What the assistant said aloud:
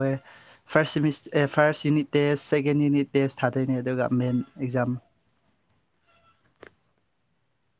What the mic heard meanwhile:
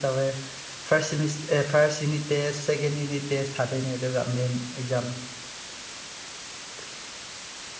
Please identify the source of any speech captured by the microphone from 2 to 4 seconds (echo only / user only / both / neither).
echo only